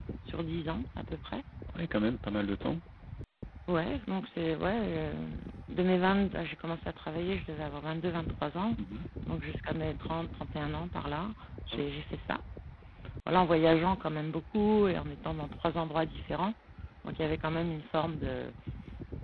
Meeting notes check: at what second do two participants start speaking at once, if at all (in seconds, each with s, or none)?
none